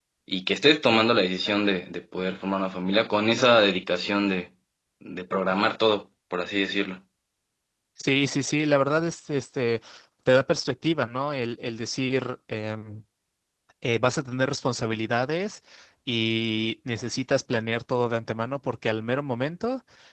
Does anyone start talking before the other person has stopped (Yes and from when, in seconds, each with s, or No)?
No